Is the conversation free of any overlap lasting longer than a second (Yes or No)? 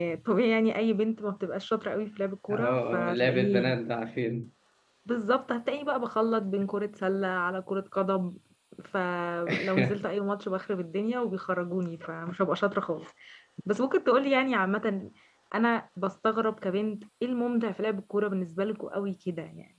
No